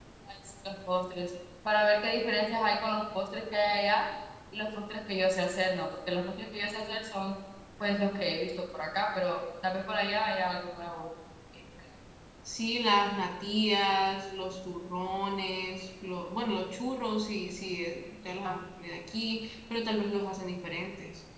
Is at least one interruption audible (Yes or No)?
No